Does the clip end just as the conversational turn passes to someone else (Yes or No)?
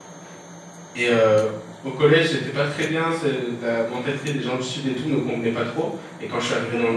No